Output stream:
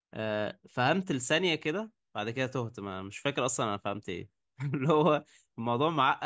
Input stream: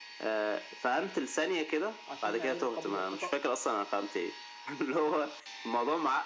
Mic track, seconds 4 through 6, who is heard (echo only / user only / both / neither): echo only